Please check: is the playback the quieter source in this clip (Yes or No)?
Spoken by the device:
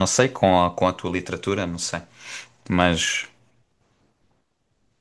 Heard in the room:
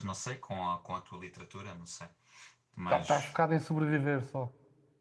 Yes